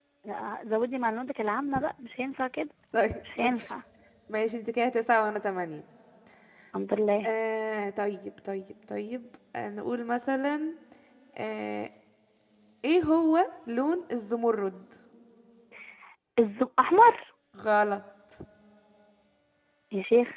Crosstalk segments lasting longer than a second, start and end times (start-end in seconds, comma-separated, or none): none